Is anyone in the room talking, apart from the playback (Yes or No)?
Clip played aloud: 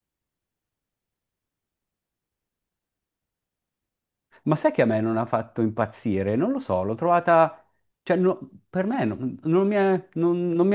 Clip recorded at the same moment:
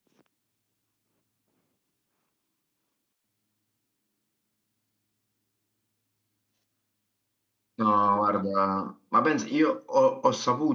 Yes